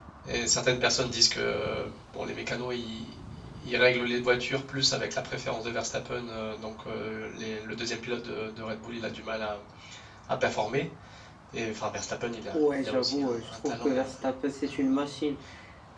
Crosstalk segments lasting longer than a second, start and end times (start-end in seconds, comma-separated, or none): 12.5-14.1